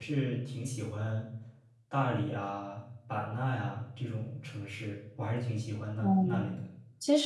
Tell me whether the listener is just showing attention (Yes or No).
No